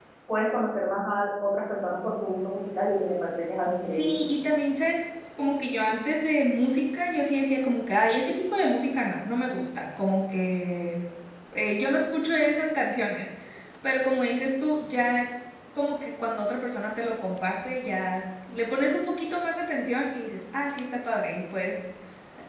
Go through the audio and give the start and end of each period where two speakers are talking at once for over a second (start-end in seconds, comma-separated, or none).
none